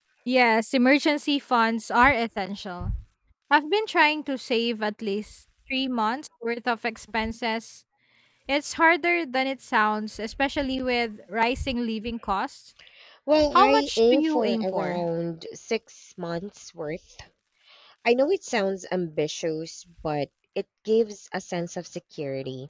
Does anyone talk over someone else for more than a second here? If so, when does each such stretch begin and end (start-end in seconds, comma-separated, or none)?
13.6-15.0